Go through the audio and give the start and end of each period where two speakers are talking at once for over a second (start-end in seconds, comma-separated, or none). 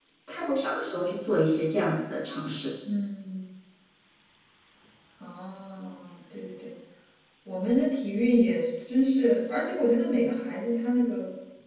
none